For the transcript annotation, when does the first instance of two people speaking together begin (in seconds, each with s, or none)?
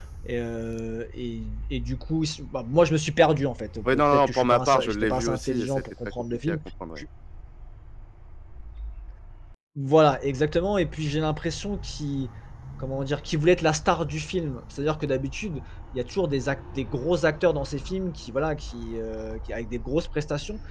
3.9 s